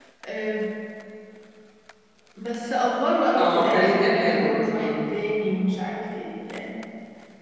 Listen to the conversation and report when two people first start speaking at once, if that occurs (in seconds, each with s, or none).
3.4 s